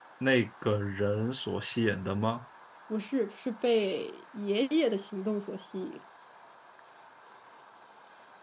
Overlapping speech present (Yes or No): No